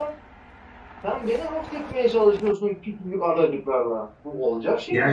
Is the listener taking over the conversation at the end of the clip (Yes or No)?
Yes